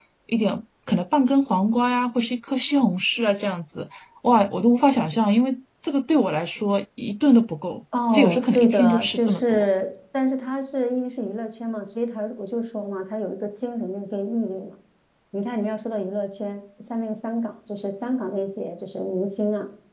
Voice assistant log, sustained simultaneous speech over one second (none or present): present